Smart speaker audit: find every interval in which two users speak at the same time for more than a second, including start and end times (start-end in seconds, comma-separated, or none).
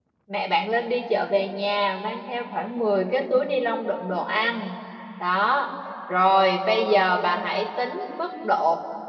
none